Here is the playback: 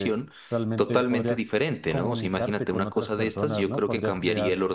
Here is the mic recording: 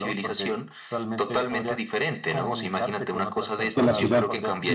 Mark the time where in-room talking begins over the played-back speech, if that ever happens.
3.7 s

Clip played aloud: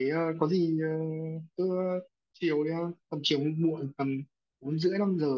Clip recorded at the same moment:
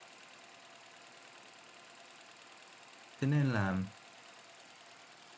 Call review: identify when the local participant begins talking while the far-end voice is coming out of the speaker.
3.2 s

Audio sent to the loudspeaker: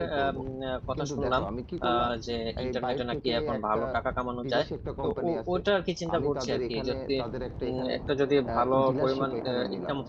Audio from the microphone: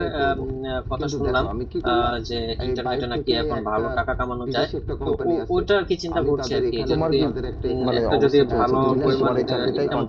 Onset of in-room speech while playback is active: 6.9 s

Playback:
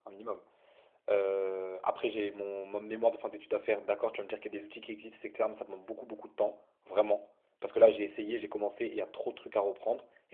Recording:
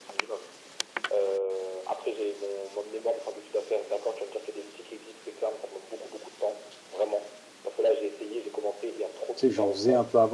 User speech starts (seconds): 9.3 s

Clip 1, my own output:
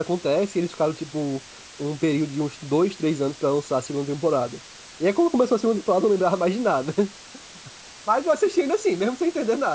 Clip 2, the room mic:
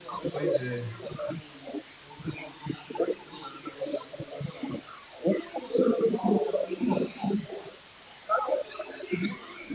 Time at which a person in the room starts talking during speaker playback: 0.3 s

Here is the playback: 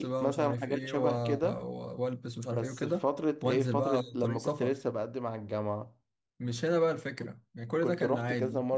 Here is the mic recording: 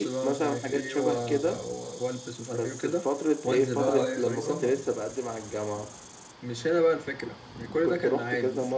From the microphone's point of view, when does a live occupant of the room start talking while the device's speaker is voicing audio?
3.8 s

